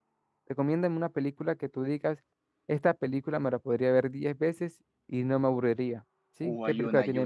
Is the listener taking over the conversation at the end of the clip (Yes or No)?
Yes